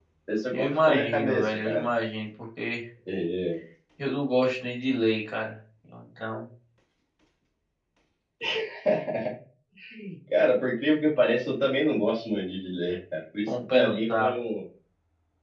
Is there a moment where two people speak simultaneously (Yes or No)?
Yes